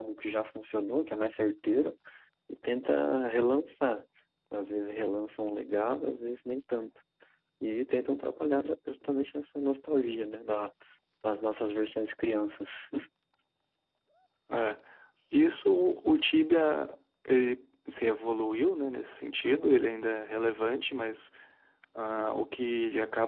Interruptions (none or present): none